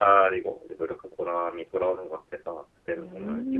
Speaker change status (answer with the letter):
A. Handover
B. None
A